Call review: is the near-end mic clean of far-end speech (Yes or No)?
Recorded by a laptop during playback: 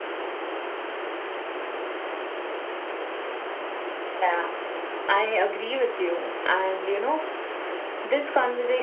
No